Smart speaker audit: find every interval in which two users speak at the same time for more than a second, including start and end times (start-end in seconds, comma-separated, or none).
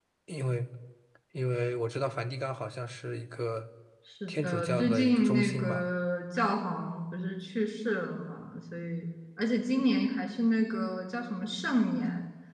4.3-5.9